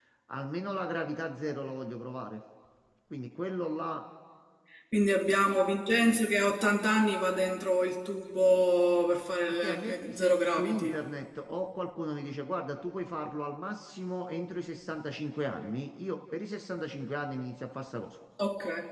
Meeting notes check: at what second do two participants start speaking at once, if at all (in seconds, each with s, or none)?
9.6 s